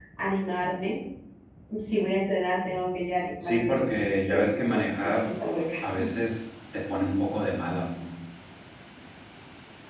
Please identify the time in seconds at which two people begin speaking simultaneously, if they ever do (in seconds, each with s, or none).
3.4 s